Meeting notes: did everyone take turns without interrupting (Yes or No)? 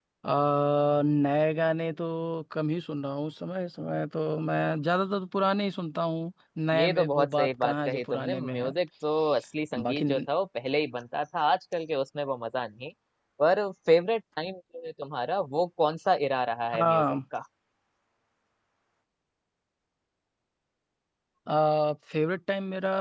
No